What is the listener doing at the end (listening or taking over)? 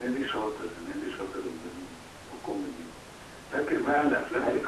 listening